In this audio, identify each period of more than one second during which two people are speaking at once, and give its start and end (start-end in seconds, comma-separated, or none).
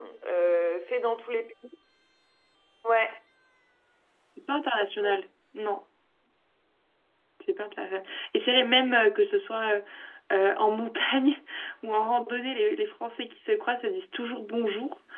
none